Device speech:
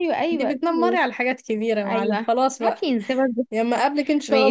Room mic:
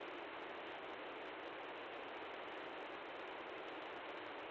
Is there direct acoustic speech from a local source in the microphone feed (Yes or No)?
No